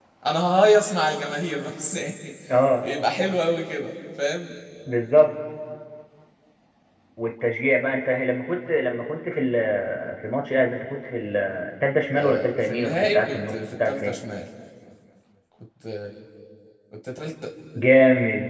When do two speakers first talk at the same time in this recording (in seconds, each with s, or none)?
12.1 s